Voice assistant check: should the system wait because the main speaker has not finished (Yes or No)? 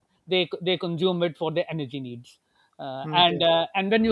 Yes